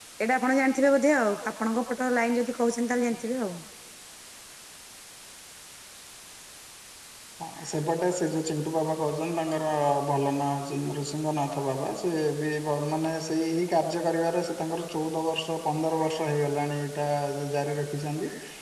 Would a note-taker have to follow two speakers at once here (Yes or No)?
No